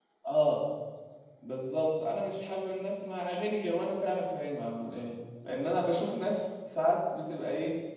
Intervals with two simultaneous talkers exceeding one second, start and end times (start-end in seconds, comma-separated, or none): none